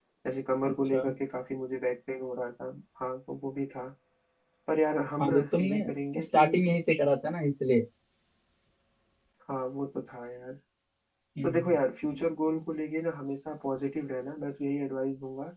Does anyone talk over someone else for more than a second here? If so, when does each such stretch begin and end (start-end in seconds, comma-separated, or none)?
5.2-6.7